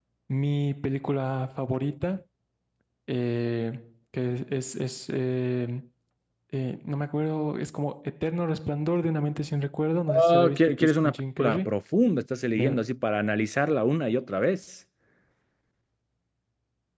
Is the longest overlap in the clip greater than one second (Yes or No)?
Yes